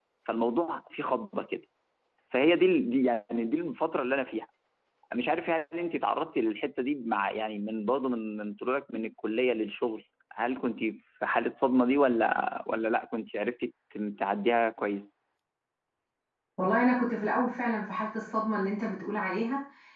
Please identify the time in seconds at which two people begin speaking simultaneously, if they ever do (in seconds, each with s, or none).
none